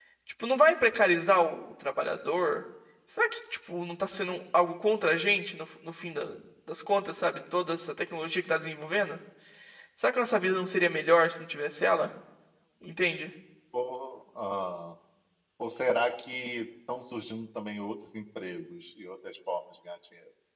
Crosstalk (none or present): none